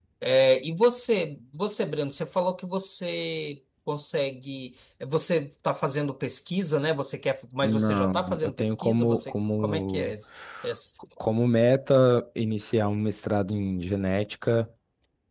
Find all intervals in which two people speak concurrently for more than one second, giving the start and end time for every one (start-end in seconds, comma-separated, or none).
7.6-10.1